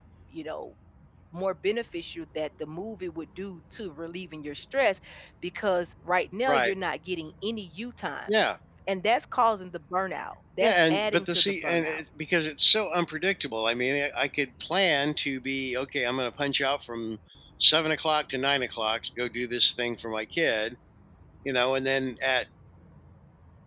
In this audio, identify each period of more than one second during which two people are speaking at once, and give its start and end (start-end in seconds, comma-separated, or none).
10.6-12.0